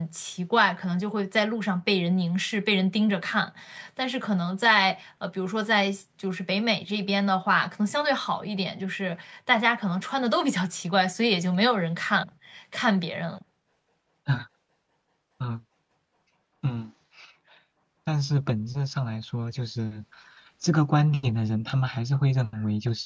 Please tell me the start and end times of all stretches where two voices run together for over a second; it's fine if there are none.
none

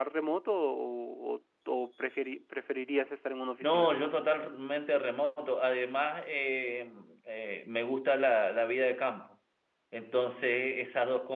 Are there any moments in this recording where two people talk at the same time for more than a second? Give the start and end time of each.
none

